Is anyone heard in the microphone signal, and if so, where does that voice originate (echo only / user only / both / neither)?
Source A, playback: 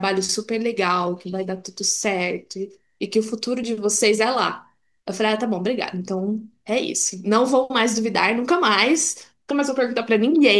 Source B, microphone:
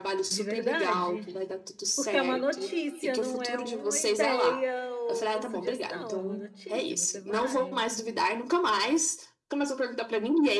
both